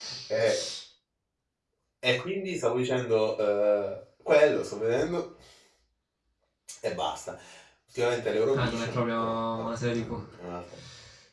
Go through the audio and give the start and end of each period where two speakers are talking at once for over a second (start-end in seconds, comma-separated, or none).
8.5-10.2